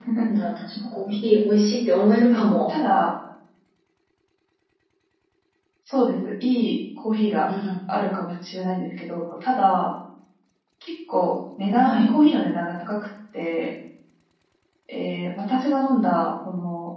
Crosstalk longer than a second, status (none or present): none